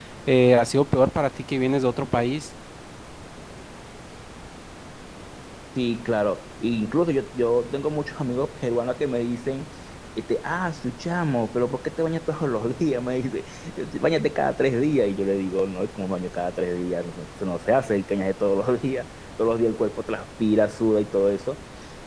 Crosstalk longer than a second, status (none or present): none